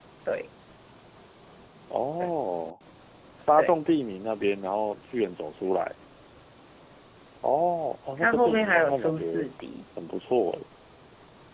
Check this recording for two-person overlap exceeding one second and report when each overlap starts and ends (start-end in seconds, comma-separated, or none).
8.2-9.5